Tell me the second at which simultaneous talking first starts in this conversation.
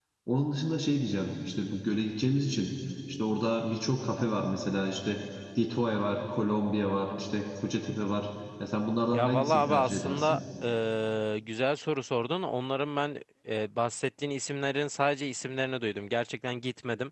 9 s

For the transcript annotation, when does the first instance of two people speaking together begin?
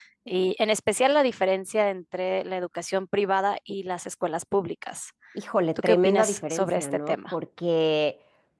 6 s

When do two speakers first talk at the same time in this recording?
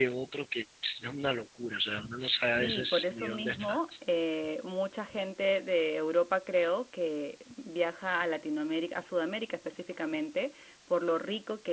2 s

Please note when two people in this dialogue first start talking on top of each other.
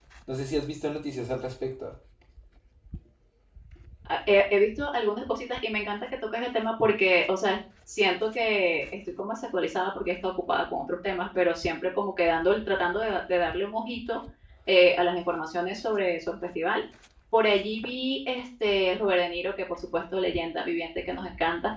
none

